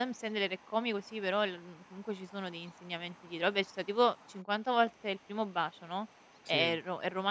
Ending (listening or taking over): listening